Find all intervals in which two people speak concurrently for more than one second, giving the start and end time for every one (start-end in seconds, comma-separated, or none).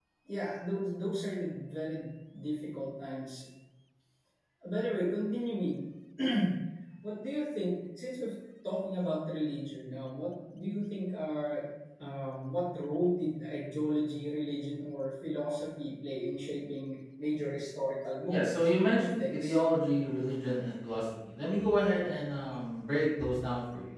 18.3-19.6